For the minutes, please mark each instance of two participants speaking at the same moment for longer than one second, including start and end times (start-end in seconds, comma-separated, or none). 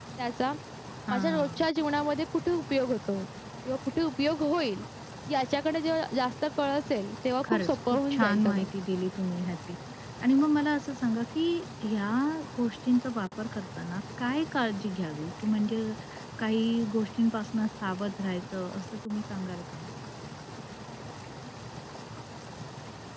7.5-8.7